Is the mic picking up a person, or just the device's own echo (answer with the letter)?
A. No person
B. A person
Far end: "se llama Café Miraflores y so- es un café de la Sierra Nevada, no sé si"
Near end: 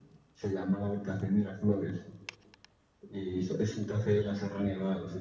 A